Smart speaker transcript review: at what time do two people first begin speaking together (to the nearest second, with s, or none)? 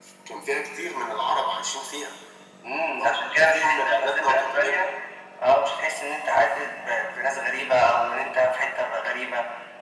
3 s